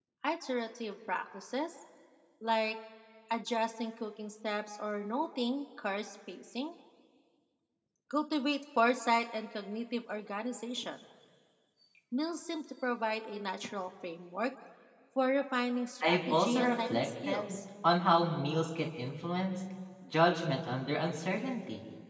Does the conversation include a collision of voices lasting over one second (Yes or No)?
Yes